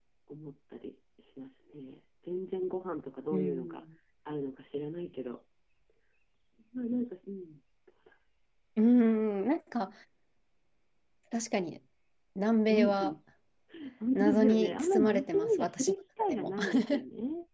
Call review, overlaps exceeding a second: present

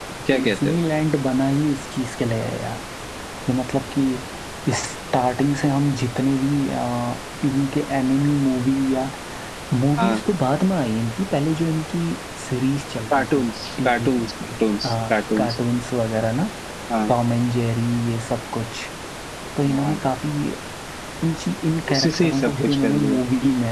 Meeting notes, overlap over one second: present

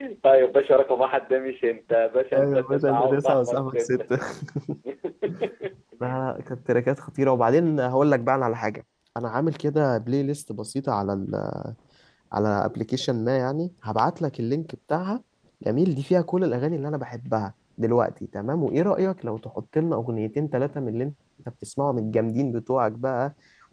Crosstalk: present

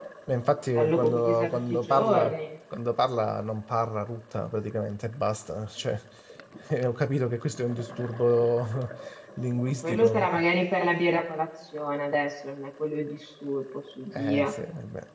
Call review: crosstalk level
present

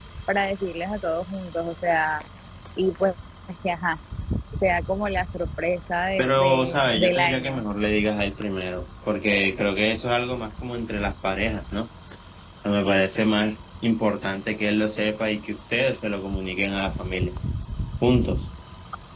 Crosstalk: present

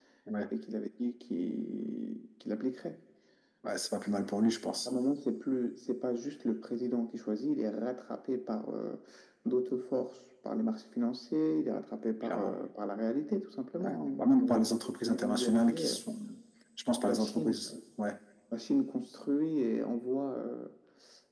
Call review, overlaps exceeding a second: present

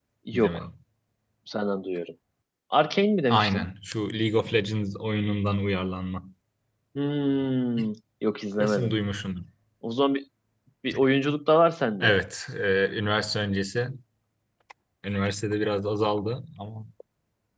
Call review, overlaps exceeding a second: none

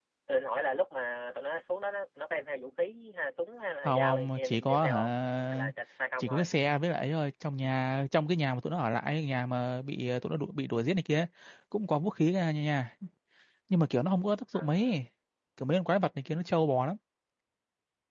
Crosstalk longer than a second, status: present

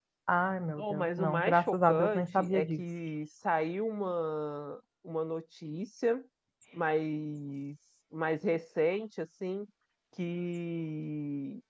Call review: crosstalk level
present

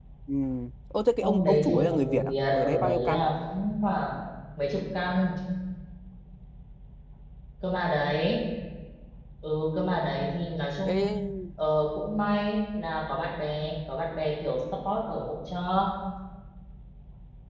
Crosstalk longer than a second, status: present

